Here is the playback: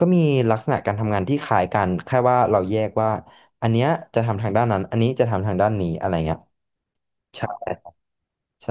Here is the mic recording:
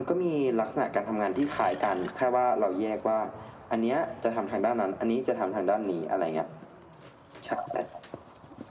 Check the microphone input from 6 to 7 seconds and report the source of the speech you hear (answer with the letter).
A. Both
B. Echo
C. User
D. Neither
B